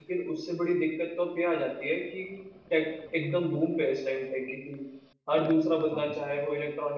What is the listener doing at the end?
listening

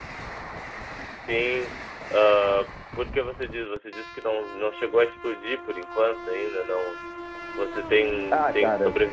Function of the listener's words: listening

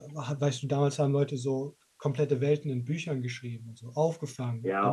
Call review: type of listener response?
taking over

